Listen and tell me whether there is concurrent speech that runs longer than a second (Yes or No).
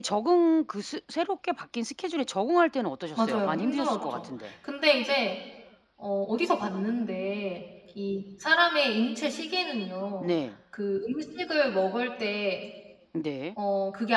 Yes